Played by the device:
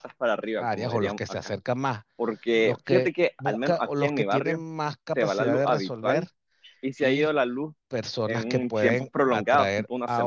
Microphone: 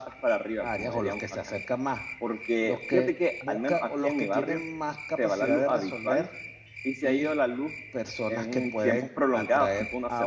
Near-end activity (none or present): none